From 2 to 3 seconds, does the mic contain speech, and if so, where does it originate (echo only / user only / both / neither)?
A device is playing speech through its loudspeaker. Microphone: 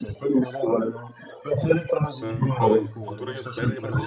both